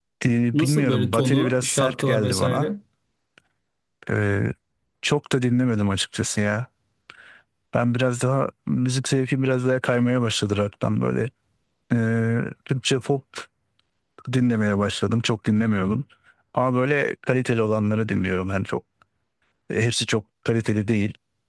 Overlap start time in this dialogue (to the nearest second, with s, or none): 1 s